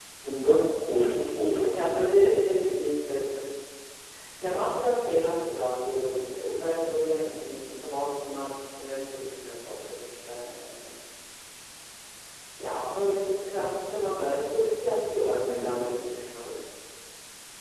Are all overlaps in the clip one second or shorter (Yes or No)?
Yes